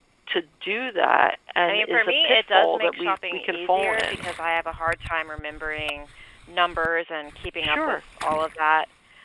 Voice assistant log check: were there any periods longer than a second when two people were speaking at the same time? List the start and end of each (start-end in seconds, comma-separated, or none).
1.7-4.2